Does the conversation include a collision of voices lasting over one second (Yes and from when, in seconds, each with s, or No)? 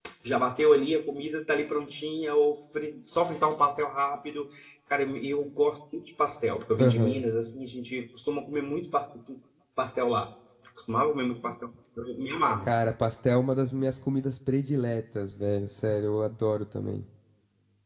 No